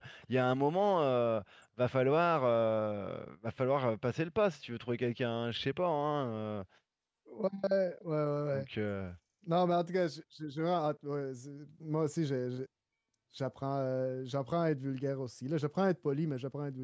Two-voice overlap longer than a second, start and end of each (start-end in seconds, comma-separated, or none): none